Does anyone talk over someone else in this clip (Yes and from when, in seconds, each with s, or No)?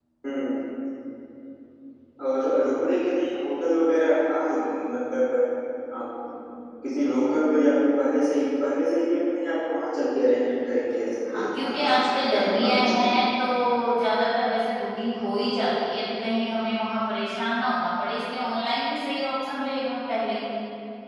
Yes, from 11.3 s